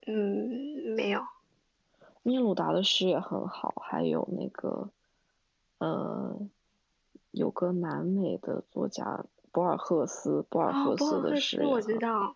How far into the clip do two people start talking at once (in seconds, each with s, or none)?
10.7 s